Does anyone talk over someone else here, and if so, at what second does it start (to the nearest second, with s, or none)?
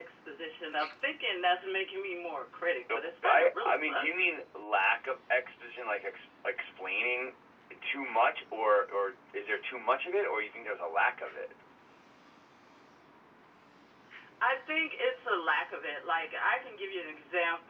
3 s